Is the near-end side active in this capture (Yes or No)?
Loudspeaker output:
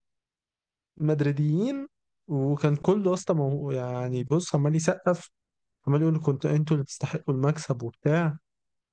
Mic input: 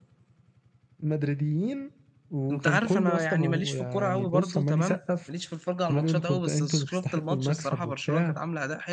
Yes